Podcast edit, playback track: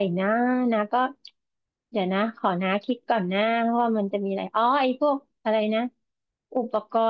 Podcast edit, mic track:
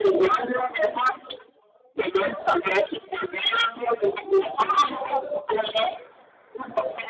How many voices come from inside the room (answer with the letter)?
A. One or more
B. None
B